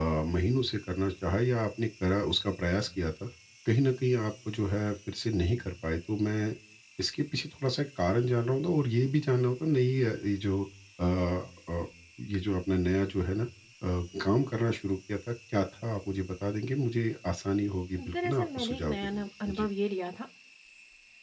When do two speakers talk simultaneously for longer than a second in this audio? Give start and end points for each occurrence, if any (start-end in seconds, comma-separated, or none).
18.0-19.7